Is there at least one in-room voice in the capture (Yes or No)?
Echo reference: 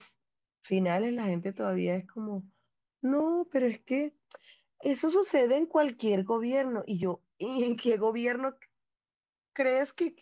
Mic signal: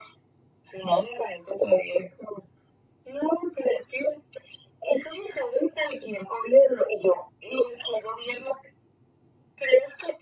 No